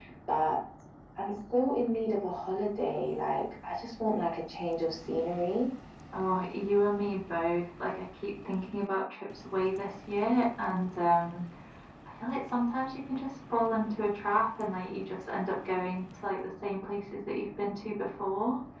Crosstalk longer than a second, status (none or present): none